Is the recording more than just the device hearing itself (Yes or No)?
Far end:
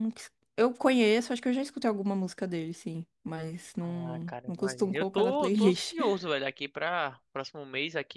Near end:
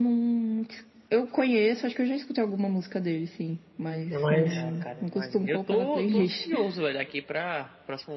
Yes